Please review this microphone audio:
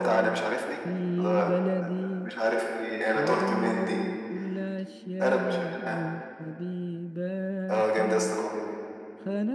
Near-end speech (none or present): present